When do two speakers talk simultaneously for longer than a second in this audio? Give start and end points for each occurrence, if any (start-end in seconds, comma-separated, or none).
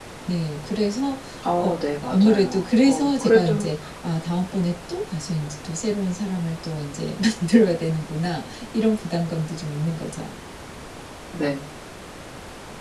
1.6-3.6